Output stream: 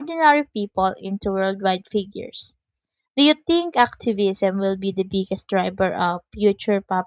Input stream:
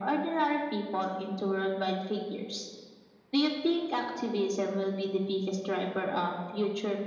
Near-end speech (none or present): none